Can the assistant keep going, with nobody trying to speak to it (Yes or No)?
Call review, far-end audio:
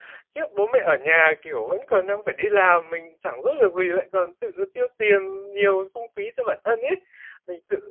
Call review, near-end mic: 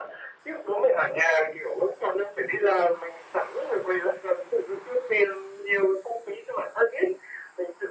Yes